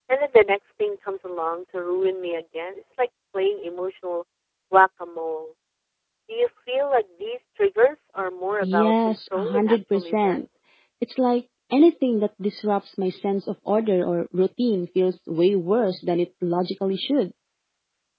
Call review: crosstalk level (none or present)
present